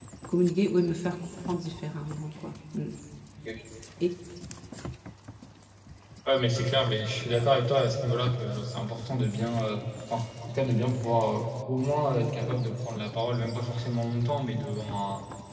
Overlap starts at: none

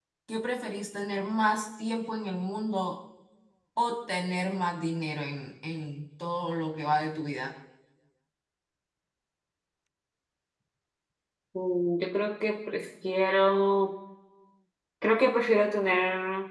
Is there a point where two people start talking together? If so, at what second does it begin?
none

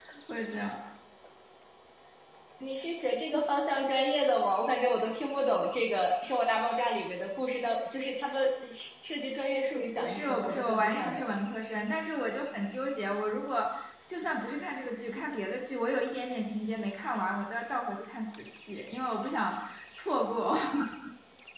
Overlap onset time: 9.7 s

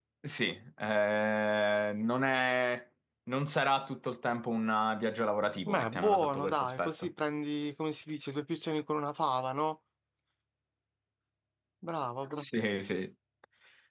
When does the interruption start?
5.7 s

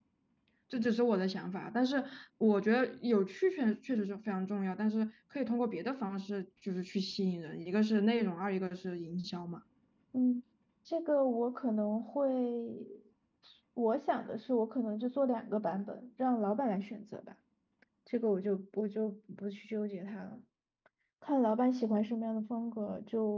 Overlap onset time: none

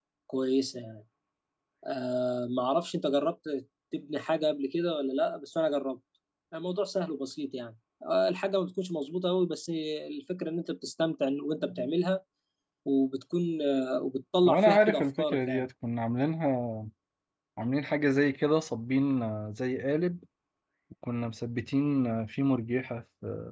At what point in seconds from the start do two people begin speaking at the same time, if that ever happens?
14.4 s

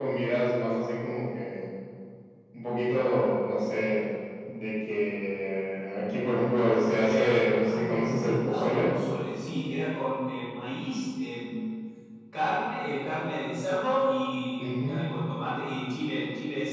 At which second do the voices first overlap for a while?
7.1 s

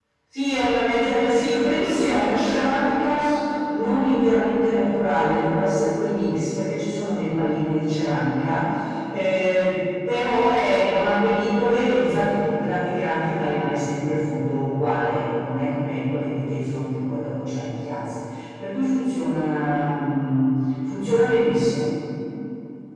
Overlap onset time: 1.5 s

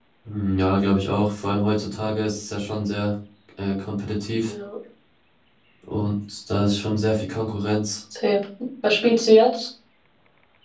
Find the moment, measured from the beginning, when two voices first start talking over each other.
none

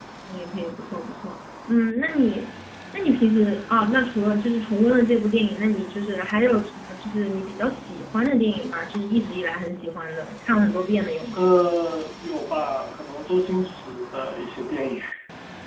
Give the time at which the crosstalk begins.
none

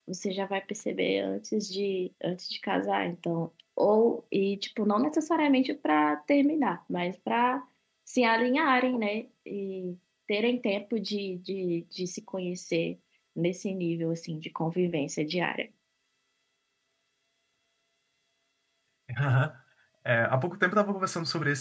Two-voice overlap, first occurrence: none

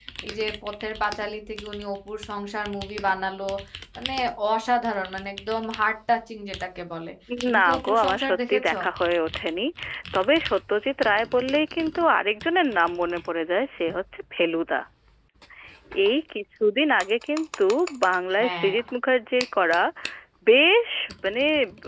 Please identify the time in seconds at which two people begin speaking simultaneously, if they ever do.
7.5 s

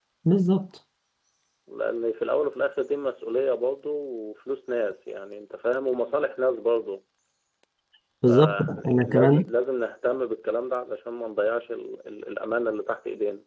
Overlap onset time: 8.3 s

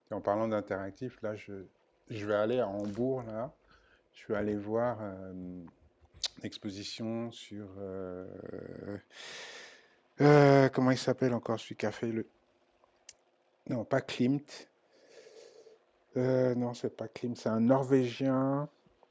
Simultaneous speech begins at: none

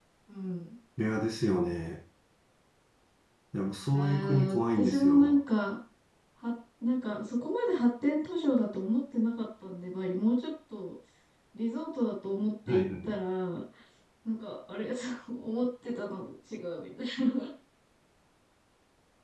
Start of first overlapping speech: 3.9 s

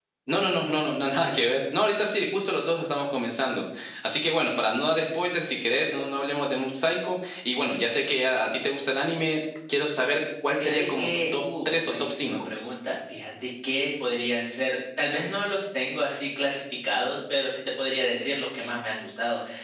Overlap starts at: 10.6 s

